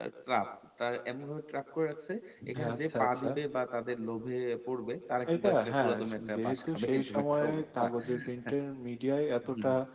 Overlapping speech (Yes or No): Yes